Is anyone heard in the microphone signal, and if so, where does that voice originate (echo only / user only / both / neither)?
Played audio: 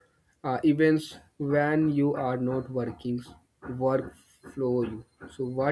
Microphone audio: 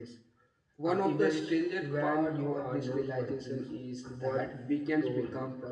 both